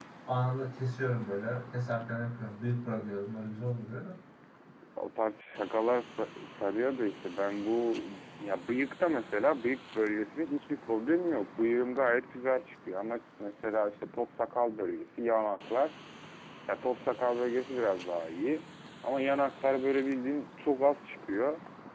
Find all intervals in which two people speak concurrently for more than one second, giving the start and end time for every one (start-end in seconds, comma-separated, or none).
none